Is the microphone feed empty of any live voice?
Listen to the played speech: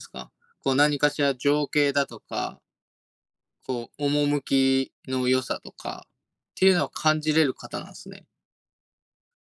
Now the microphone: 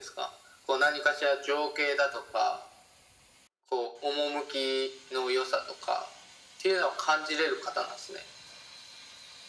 Yes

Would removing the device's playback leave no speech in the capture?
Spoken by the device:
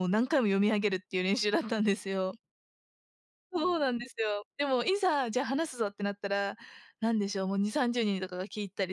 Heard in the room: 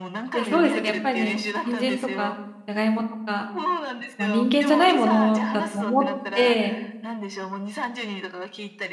No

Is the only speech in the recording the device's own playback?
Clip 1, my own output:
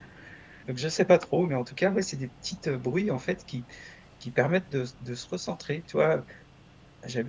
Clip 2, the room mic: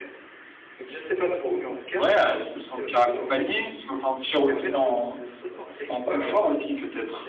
No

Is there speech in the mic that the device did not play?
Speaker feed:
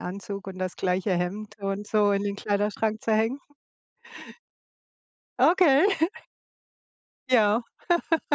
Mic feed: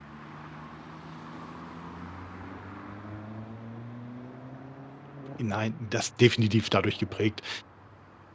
Yes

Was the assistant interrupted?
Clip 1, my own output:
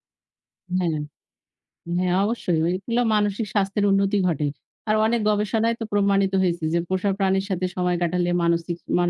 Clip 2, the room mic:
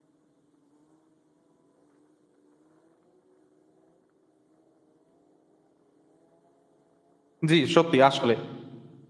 Yes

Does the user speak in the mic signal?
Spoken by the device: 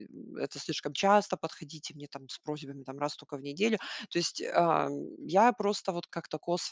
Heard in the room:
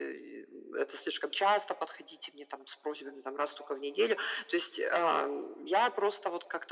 No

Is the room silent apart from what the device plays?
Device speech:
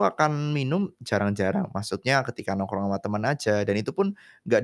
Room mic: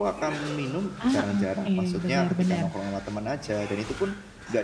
No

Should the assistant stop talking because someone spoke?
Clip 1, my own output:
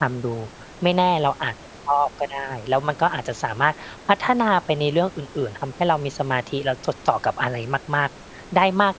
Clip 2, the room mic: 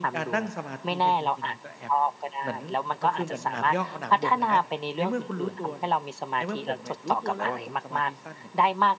Yes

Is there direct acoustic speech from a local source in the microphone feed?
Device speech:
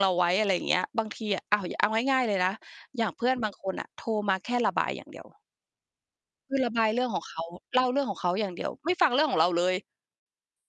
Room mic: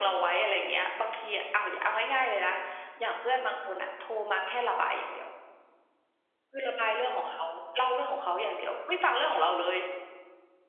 No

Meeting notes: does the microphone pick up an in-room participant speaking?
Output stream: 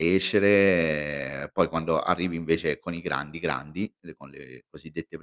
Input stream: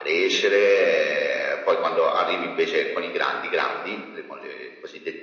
No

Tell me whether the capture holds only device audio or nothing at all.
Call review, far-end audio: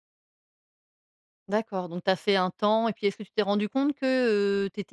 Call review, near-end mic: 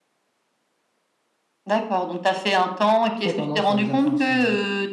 No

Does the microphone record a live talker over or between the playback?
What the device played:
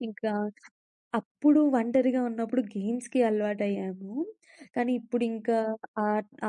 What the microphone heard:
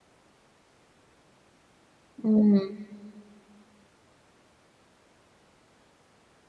Yes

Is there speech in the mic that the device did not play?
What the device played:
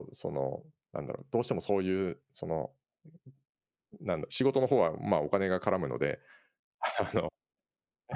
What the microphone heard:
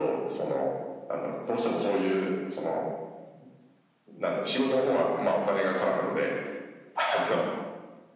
No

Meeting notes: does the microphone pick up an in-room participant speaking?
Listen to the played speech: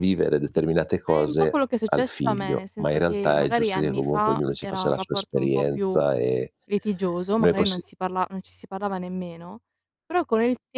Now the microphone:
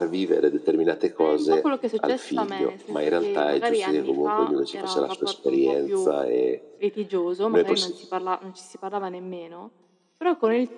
No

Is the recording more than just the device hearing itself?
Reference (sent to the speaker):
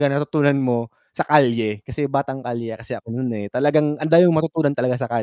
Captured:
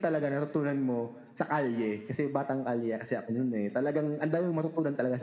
No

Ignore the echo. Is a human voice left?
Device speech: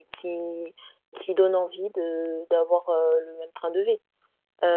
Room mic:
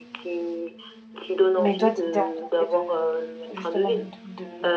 Yes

